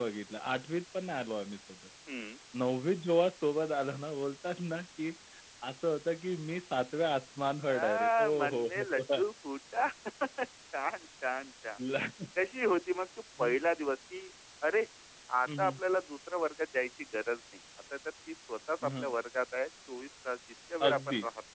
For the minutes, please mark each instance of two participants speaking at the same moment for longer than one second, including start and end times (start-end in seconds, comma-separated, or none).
7.7-9.2